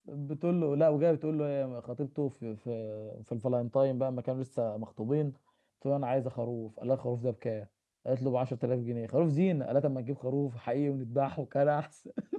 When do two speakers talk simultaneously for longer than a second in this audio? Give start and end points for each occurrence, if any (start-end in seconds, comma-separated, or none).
none